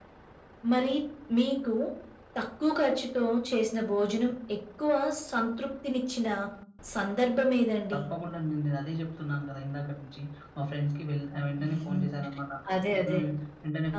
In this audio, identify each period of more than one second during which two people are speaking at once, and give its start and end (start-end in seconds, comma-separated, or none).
none